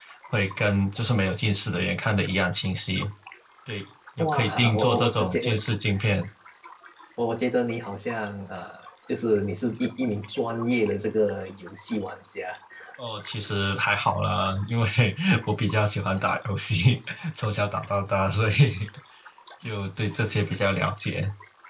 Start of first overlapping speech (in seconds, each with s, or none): 4.2 s